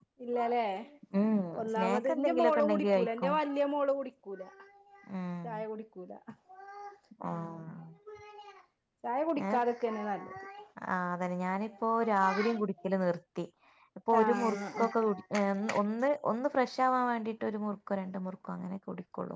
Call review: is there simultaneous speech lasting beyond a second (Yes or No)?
Yes